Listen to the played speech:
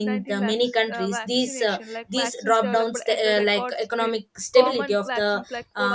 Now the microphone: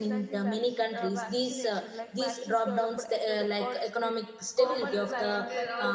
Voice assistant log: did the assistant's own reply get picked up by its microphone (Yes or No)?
Yes